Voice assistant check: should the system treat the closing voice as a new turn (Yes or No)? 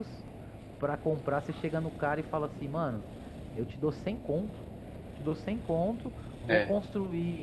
No